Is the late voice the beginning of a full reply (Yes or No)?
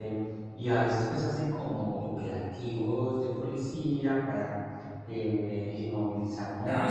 Yes